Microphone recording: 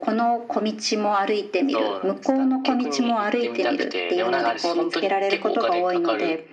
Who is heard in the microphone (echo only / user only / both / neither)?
echo only